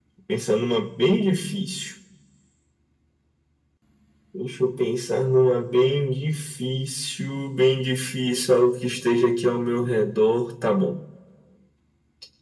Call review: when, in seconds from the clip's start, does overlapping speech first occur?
none

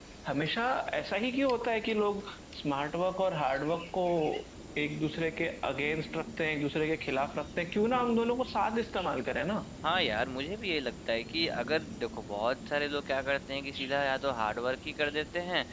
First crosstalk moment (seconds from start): none

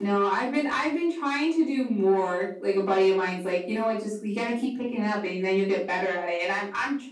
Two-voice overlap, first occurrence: none

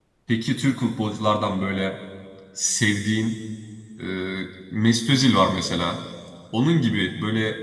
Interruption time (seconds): none

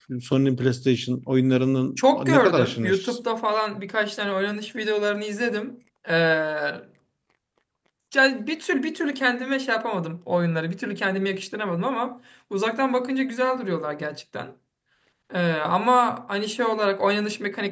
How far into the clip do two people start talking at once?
2.0 s

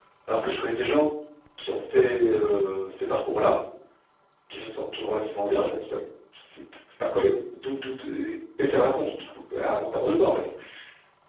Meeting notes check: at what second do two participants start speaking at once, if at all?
none

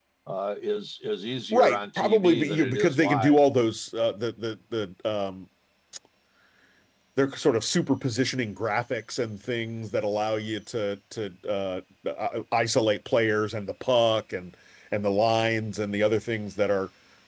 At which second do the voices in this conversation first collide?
1.5 s

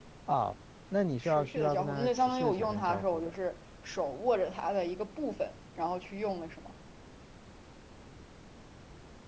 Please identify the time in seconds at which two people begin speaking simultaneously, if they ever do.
1.2 s

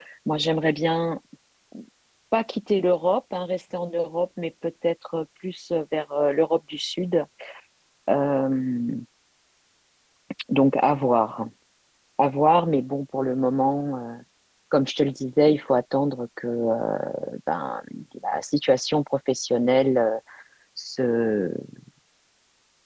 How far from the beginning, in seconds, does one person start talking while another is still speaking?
none

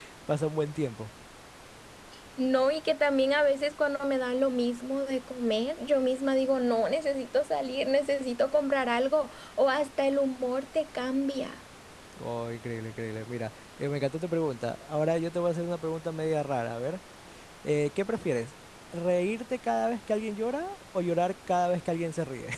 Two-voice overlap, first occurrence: none

